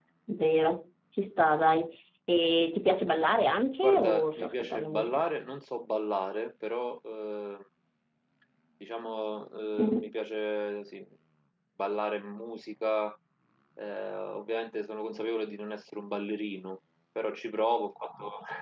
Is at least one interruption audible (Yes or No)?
Yes